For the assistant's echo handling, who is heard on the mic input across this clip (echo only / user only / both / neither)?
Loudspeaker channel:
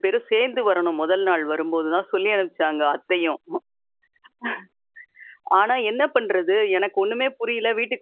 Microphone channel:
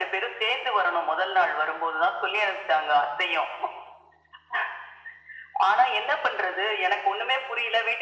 echo only